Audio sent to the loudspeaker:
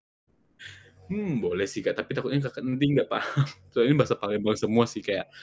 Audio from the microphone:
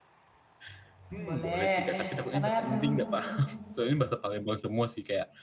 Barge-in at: 1 s

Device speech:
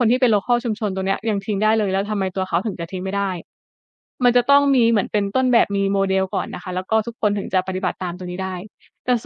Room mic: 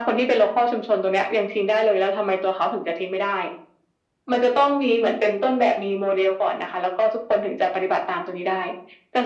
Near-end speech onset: none

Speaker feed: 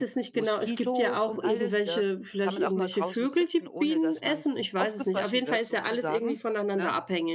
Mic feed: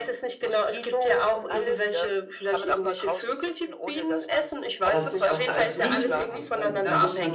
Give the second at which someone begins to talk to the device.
5 s

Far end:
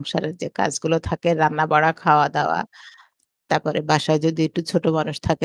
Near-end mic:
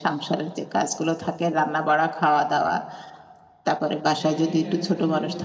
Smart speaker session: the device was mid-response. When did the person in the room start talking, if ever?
4 s

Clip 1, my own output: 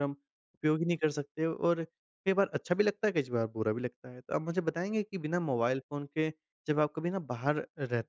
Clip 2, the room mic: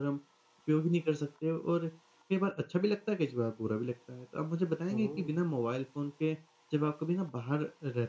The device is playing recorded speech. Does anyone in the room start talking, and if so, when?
5 s

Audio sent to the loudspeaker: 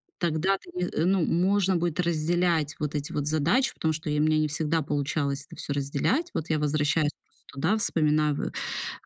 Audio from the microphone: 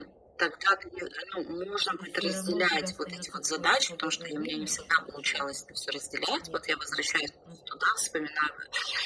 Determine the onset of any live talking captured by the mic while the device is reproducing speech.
2 s

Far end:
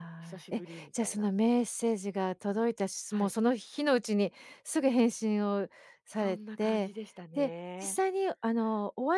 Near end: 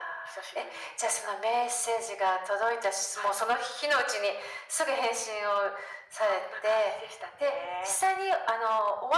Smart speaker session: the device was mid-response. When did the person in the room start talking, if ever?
none

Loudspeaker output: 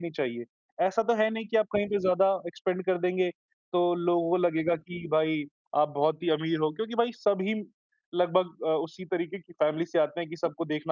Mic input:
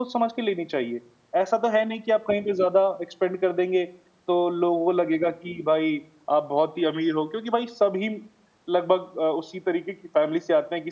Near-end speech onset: none

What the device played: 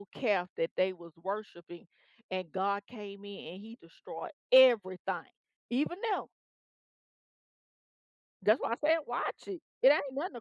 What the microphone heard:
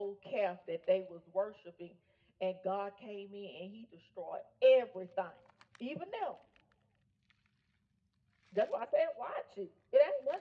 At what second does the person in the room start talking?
none

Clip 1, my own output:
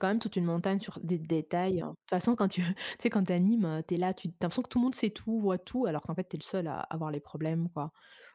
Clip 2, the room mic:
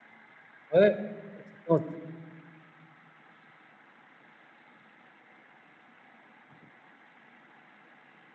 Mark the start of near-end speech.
1 s

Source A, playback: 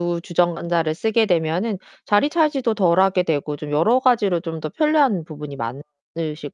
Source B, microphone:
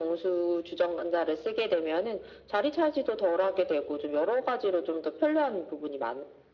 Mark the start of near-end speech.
none

